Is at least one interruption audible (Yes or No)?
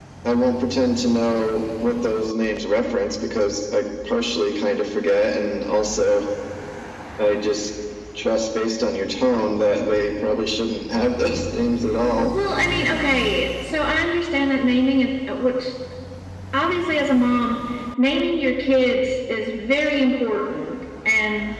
No